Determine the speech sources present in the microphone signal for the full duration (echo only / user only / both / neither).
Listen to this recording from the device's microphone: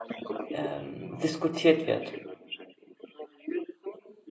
both